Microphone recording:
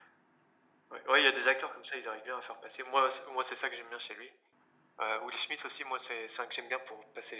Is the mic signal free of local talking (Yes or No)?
Yes